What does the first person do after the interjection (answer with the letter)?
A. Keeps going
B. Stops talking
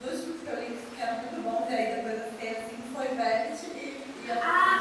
B